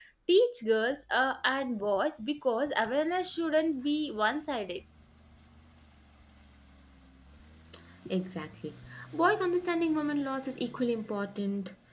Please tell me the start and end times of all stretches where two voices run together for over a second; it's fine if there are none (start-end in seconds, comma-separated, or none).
none